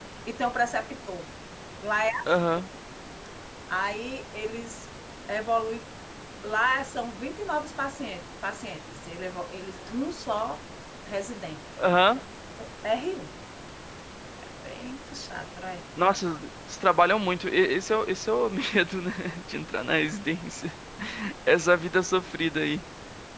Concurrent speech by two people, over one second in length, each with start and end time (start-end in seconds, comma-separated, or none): none